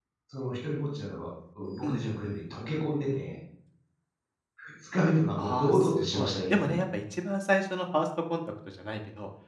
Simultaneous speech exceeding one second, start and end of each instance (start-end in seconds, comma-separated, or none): 5.4-6.8